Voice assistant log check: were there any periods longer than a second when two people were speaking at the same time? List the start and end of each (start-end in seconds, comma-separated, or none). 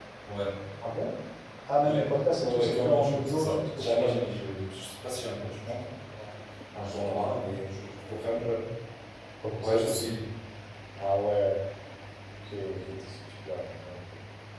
2.4-4.2